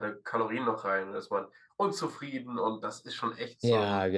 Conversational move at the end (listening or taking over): taking over